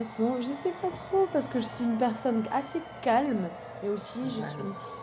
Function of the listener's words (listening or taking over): listening